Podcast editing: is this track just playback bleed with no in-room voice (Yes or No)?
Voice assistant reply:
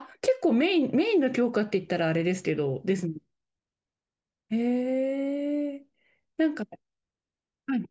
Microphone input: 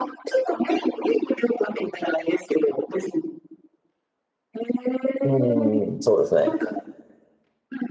No